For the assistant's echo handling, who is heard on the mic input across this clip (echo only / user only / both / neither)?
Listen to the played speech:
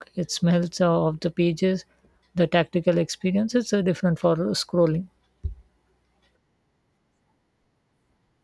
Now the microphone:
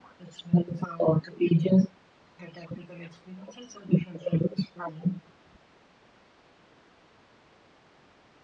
echo only